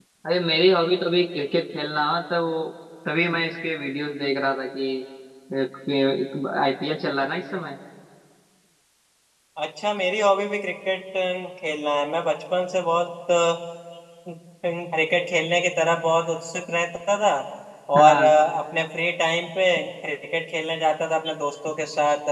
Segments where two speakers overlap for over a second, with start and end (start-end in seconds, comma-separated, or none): none